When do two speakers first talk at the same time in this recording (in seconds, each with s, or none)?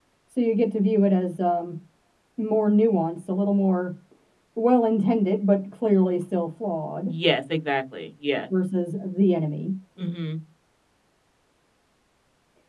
none